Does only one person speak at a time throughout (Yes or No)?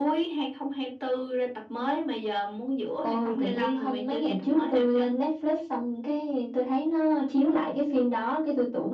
No